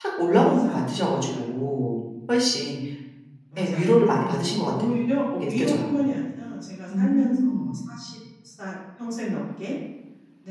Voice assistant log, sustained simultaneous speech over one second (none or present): present